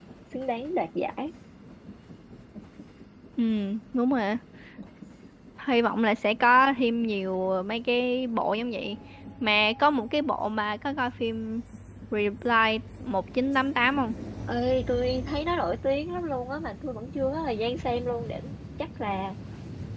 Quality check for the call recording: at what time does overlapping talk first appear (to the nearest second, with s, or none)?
none